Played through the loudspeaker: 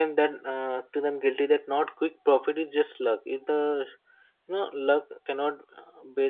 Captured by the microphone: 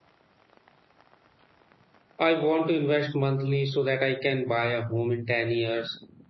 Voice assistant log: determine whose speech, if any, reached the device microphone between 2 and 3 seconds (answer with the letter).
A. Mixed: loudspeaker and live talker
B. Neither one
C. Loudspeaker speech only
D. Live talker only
D